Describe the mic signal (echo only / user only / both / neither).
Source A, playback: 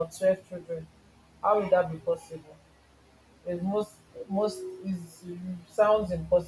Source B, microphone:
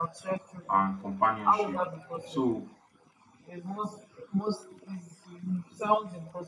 both